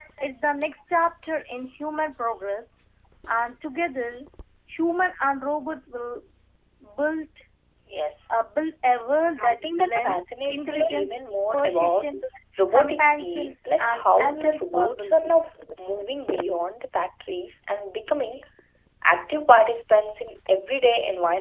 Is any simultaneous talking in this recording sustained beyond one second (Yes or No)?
Yes